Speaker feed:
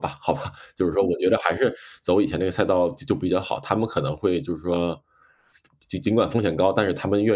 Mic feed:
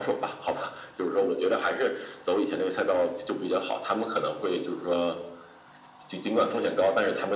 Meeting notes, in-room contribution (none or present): none